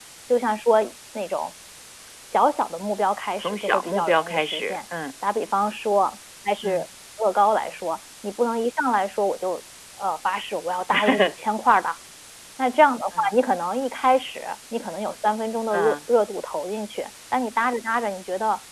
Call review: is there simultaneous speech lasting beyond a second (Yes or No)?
Yes